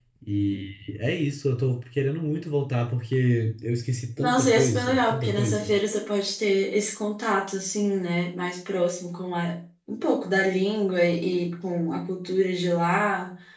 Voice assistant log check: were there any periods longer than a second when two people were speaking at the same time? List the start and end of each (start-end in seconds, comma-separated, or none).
4.2-5.7